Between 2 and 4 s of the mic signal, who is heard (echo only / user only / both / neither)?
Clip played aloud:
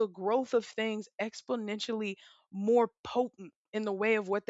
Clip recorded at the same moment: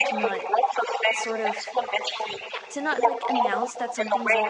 both